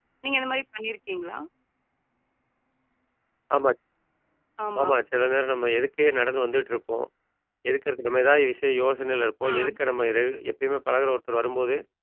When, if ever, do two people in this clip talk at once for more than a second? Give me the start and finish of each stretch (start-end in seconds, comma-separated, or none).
none